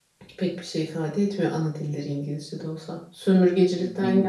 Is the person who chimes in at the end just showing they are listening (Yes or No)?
Yes